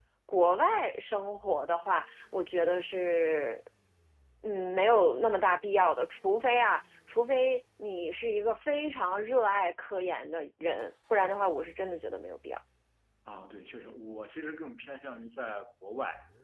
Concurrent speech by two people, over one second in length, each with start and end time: none

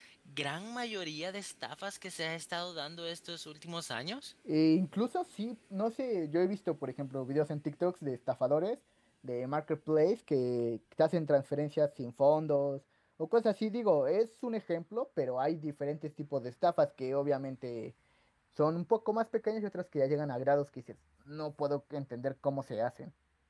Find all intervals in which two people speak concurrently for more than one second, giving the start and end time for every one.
none

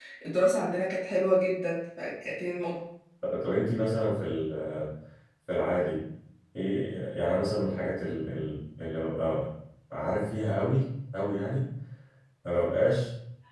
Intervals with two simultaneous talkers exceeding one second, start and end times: none

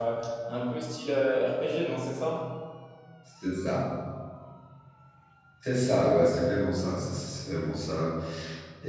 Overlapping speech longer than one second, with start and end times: none

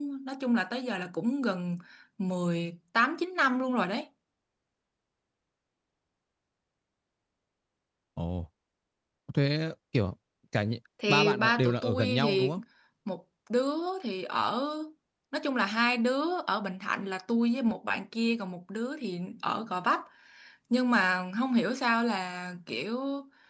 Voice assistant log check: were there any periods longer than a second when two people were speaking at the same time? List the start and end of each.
11.1-12.5

